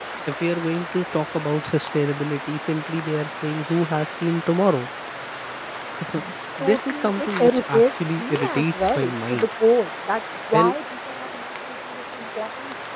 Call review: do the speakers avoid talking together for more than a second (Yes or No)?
No